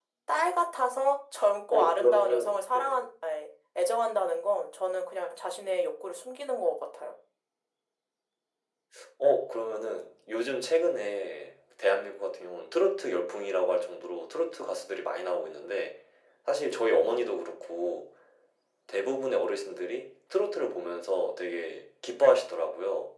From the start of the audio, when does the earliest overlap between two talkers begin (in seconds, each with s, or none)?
1.7 s